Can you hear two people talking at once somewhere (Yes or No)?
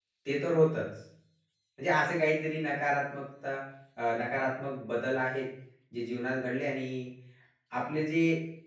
No